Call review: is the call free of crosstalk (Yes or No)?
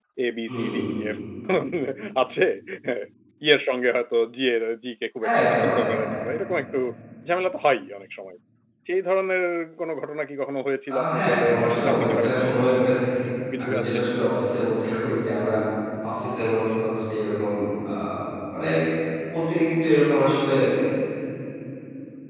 No